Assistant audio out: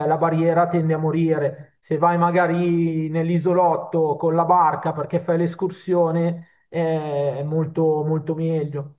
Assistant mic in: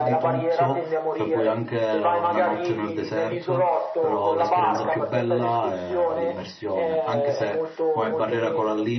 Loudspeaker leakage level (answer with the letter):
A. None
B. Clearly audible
B